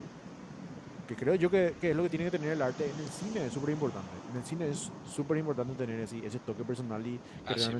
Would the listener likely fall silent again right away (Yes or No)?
Yes